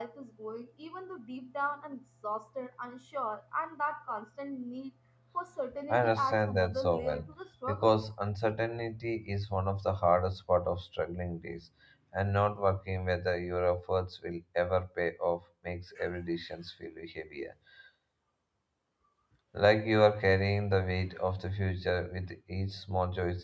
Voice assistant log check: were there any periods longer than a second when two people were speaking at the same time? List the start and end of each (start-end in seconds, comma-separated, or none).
5.9-7.3